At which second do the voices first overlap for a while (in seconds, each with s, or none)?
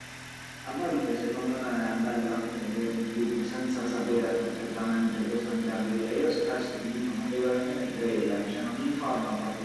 none